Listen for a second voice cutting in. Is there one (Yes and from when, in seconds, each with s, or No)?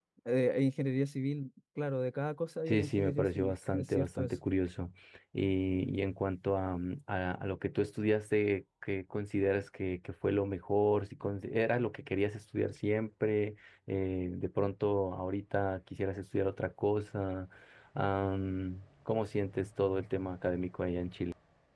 Yes, from 2.7 s